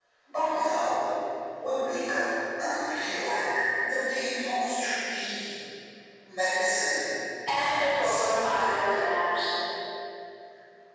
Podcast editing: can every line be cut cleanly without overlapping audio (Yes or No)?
No